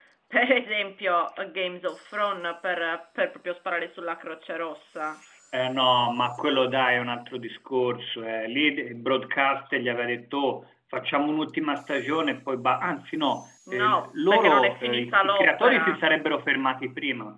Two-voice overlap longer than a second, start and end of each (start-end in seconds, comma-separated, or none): 13.7-16.0